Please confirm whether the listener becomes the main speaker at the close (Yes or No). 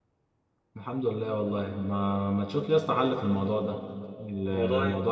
No